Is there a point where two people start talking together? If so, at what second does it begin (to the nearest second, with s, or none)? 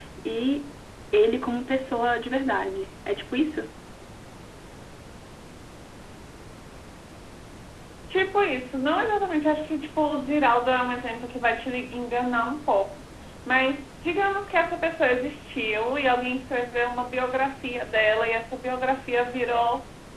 none